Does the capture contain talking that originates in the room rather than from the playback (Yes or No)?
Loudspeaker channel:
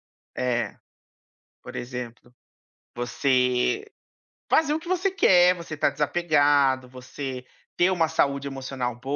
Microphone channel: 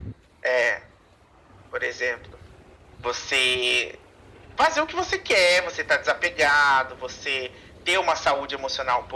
No